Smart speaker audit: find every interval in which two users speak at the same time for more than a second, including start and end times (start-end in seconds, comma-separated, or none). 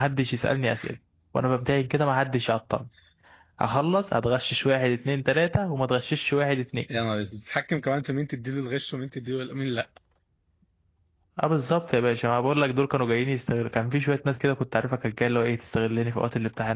none